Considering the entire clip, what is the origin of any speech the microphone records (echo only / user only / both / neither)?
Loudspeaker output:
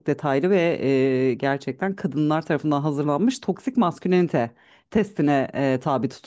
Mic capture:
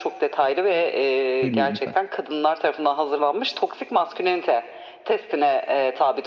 both